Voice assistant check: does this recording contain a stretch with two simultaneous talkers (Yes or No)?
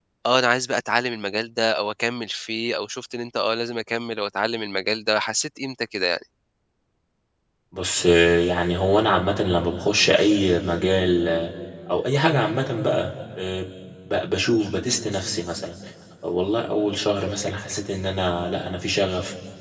No